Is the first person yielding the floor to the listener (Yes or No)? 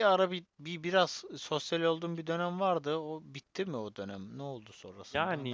Yes